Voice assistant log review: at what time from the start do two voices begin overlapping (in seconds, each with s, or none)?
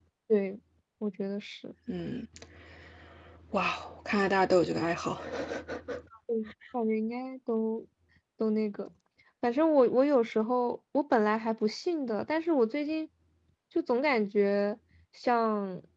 none